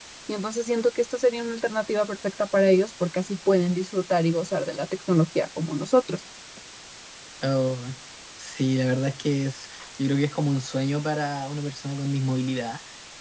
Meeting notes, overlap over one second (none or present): none